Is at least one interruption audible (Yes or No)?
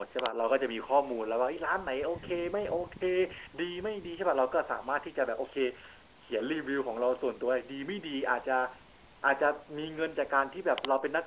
No